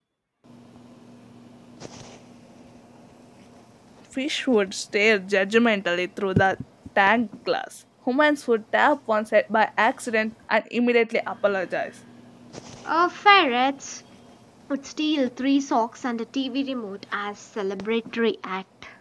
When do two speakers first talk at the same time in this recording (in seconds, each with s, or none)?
none